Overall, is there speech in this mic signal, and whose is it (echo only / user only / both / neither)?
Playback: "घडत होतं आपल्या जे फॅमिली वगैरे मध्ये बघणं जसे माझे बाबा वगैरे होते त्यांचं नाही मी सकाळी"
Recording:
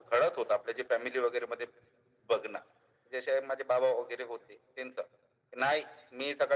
echo only